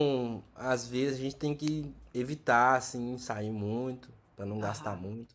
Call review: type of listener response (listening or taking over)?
taking over